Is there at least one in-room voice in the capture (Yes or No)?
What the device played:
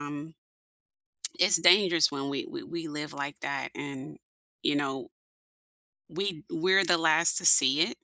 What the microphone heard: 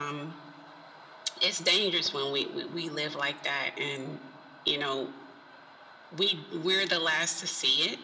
No